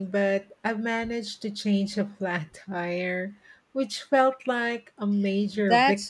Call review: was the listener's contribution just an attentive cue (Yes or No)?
No